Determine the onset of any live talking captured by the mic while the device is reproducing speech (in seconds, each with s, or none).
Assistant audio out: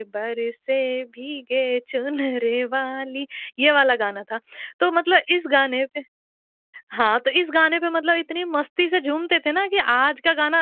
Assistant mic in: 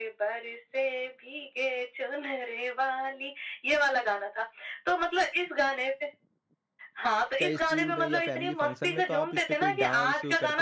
7.4 s